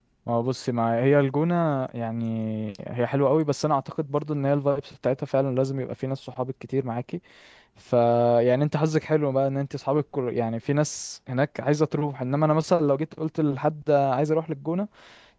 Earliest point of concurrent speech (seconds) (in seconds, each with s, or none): none